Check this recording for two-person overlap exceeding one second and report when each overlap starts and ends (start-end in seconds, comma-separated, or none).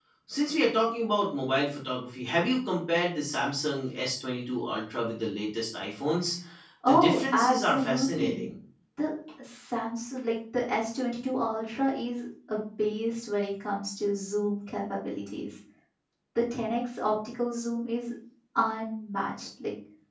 6.9-8.5